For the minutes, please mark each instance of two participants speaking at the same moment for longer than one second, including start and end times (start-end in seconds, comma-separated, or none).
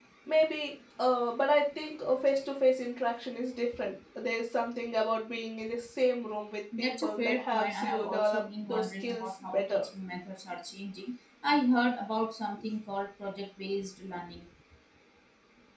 6.8-9.8